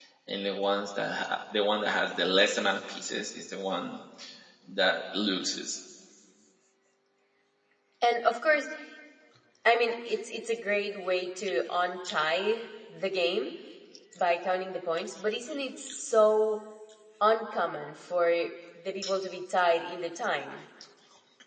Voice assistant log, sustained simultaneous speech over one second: none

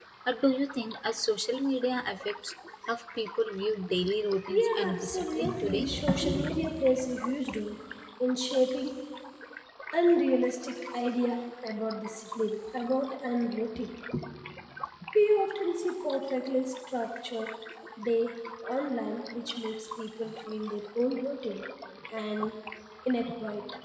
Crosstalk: present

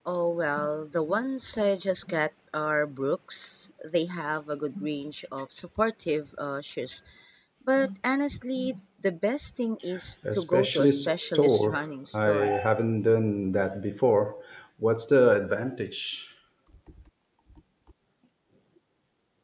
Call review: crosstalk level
present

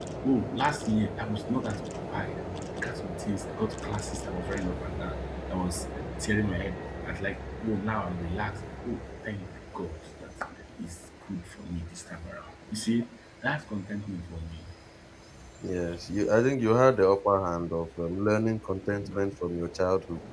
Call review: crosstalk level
none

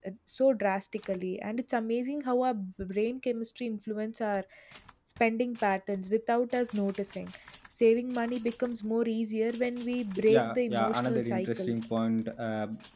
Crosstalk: present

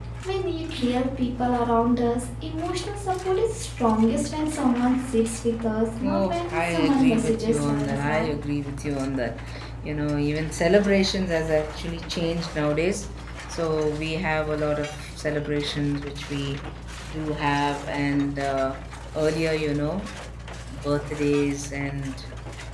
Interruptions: present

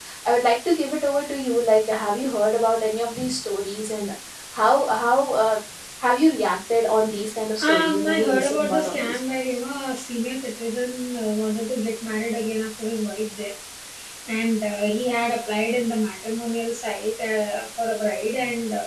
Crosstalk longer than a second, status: present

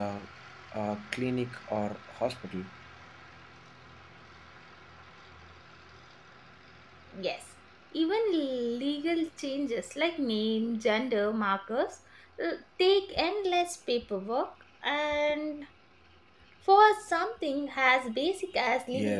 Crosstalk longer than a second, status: none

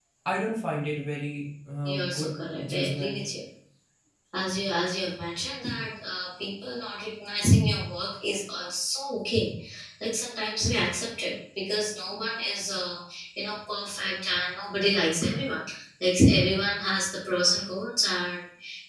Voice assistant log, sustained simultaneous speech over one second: present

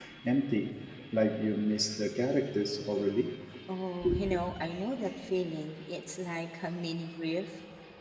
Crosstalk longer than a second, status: none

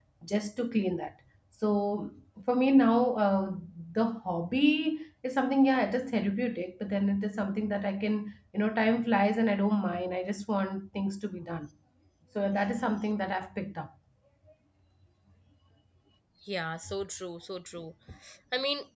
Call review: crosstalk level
none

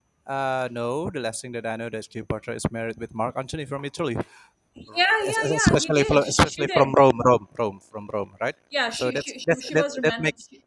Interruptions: present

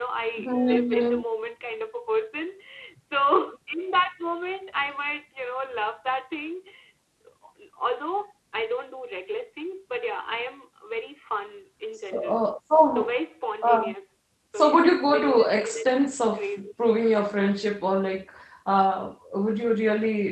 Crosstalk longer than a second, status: present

